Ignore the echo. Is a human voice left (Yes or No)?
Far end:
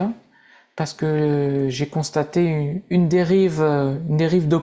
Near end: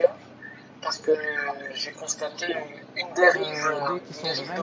Yes